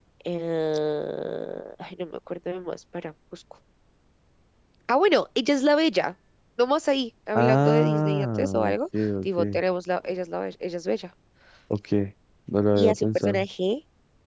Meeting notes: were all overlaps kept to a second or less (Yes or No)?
No